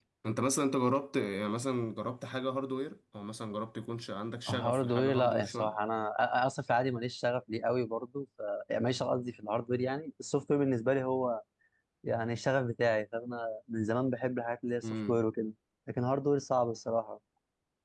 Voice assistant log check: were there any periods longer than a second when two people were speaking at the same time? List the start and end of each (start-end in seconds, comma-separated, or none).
4.5-5.7